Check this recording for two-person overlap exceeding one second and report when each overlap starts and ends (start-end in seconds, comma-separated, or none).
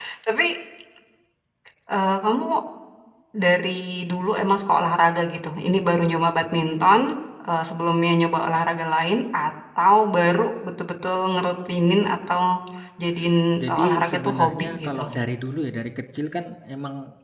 13.6-15.0